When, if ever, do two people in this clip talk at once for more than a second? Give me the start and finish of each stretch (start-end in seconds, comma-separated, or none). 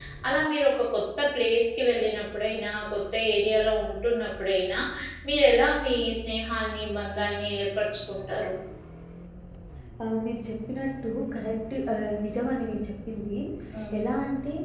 none